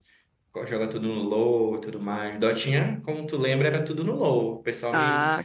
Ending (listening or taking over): listening